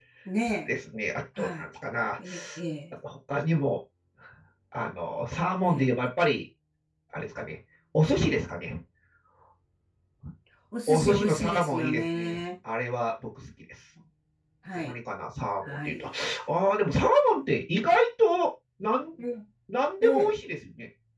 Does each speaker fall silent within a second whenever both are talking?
No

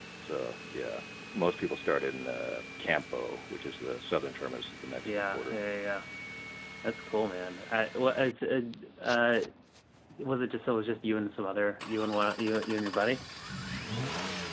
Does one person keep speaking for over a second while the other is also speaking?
No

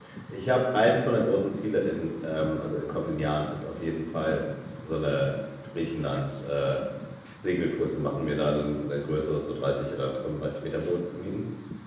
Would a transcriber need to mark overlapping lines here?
No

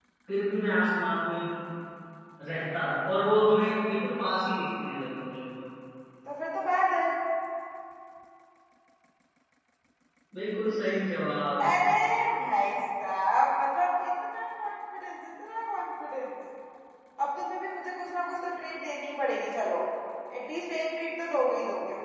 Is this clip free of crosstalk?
Yes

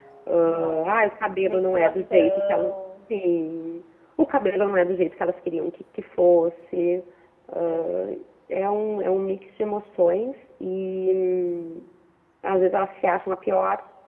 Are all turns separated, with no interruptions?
No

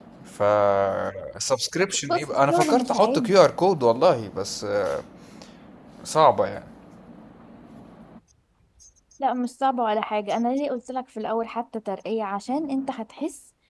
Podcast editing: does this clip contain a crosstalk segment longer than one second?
Yes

